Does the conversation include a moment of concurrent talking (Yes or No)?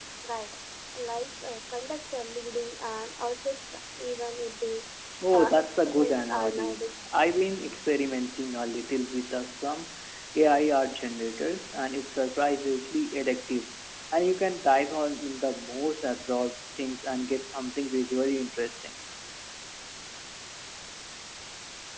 Yes